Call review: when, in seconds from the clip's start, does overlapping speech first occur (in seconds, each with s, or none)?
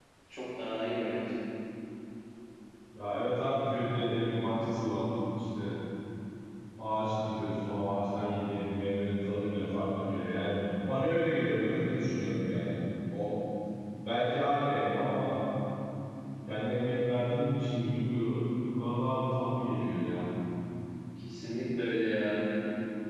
none